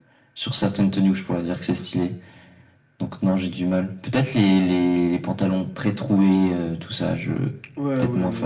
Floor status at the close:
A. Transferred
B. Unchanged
A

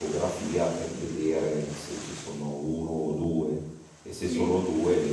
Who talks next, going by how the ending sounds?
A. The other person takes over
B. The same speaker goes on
B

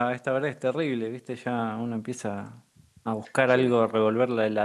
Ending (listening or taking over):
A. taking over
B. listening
B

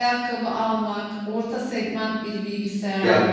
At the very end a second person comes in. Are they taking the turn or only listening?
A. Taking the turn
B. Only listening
A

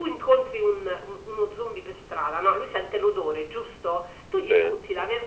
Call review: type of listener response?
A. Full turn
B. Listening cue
B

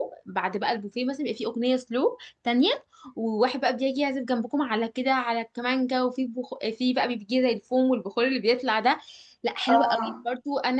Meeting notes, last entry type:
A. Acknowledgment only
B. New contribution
A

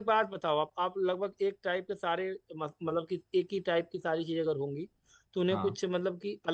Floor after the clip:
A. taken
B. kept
B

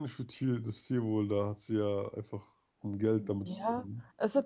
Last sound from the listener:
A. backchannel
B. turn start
B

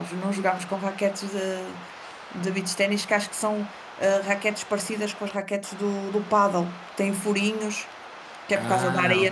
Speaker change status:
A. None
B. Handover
A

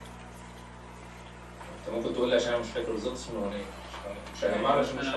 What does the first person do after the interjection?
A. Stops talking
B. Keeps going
A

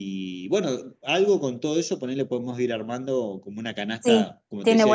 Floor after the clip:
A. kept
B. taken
B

